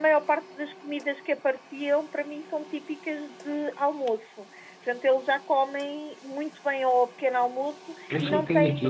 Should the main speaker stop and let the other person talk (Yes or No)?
Yes